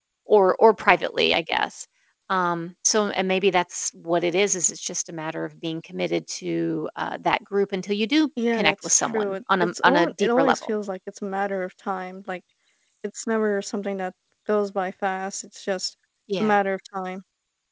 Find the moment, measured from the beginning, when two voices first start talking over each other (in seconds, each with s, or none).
8.4 s